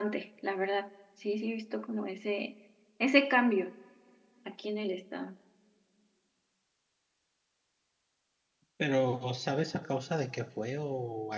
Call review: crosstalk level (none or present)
none